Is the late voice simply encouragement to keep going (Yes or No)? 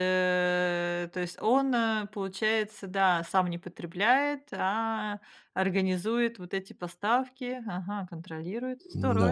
No